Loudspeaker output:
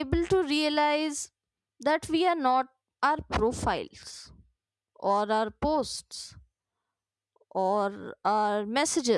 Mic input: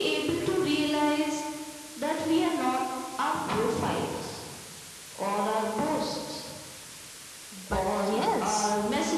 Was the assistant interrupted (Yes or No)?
Yes